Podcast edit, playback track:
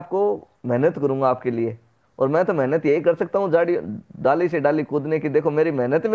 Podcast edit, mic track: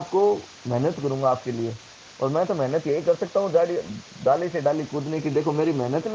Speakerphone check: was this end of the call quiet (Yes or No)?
Yes